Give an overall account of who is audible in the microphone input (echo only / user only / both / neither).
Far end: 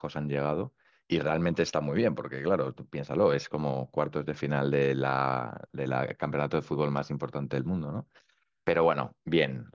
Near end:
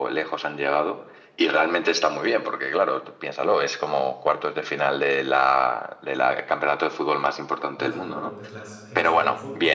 both